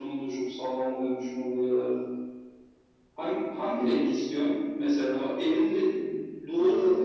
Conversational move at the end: listening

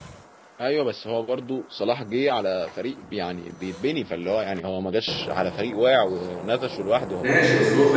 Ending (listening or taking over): taking over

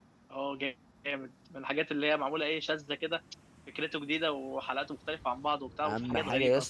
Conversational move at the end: taking over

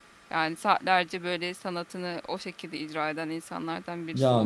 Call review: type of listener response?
taking over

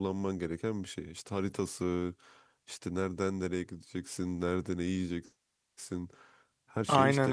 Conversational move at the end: listening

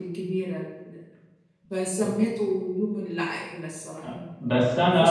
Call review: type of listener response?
taking over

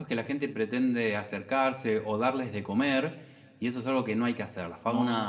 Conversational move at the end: listening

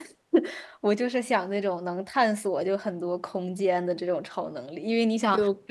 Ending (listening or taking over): listening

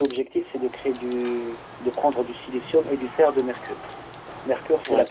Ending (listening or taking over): listening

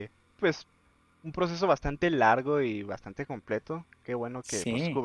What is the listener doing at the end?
listening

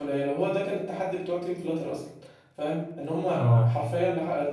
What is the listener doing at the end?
listening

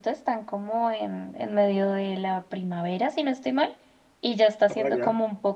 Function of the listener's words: listening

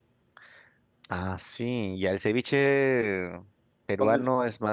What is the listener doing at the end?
listening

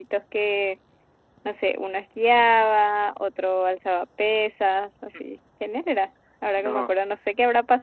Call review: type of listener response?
listening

